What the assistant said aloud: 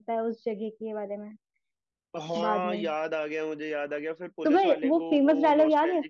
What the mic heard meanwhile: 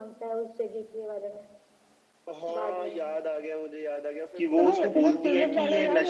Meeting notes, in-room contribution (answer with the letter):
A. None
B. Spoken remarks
B